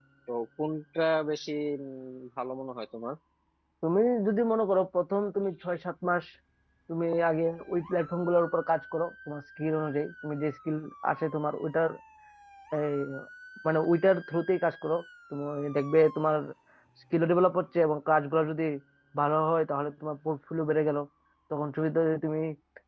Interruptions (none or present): none